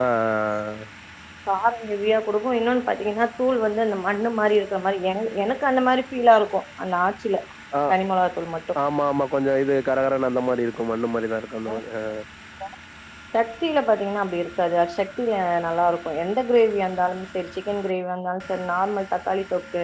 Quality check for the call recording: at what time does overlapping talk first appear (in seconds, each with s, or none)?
none